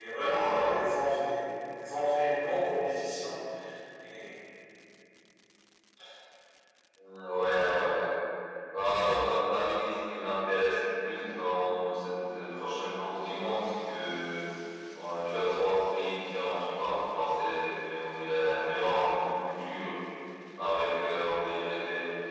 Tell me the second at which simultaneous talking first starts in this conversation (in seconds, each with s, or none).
none